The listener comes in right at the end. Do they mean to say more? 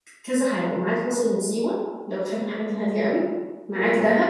No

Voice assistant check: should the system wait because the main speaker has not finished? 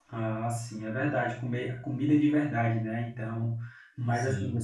Yes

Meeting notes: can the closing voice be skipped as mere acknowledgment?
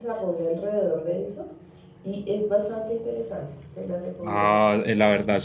No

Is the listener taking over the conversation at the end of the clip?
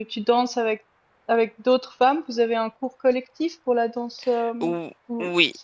Yes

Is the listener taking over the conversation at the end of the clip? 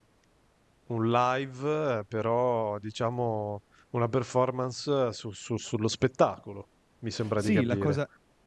Yes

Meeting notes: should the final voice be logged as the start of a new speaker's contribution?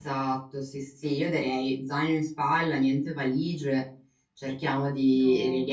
No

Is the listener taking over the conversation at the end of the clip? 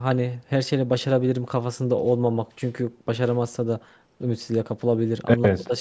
No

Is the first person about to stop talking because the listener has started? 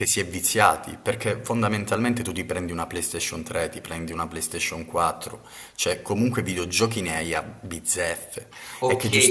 Yes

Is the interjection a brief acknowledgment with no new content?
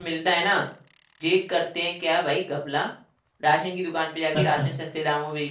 Yes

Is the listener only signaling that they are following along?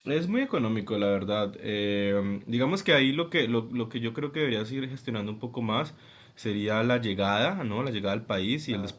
Yes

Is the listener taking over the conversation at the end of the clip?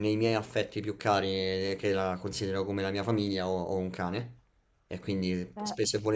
No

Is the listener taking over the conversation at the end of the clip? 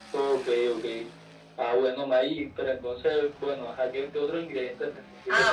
Yes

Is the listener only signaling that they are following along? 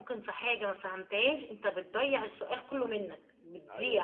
No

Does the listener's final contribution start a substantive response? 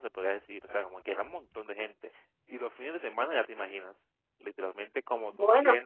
No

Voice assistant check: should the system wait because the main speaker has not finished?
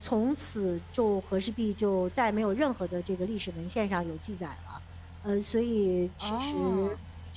Yes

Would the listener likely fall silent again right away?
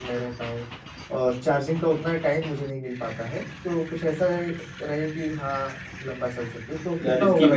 No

